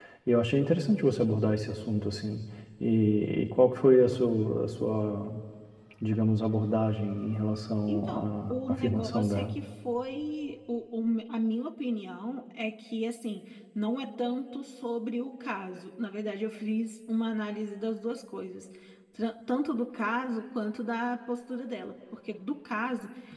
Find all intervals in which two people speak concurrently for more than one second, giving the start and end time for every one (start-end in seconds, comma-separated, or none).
7.9-9.5